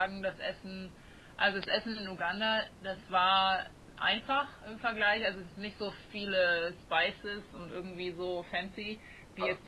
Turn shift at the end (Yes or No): Yes